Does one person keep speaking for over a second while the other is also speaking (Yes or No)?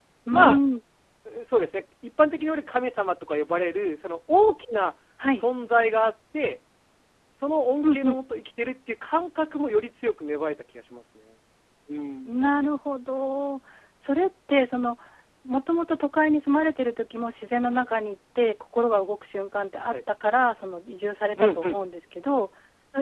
No